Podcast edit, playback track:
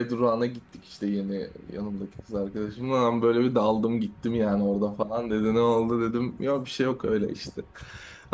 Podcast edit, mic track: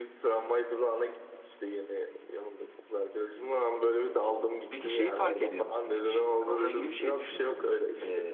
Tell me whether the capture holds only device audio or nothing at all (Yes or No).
No